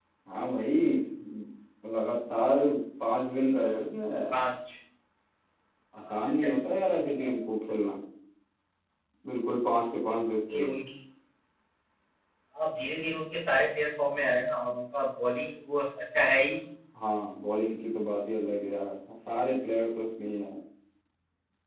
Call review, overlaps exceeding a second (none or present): present